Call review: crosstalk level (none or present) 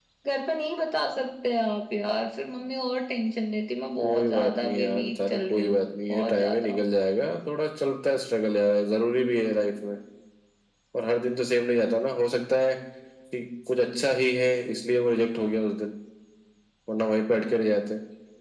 present